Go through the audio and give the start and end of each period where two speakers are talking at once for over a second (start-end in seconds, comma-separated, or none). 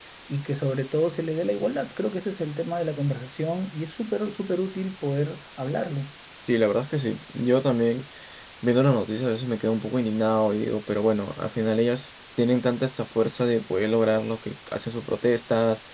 none